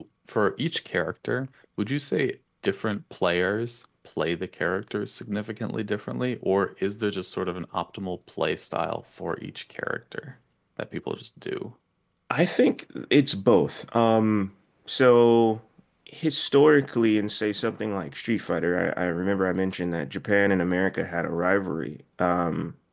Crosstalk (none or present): none